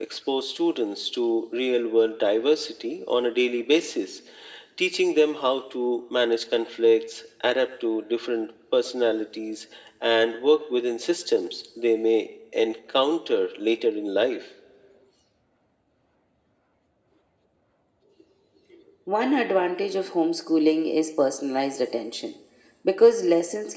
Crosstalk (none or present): none